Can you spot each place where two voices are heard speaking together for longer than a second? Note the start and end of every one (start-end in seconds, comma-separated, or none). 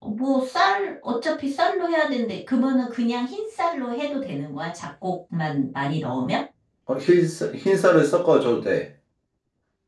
none